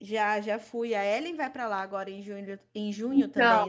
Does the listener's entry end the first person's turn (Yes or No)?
Yes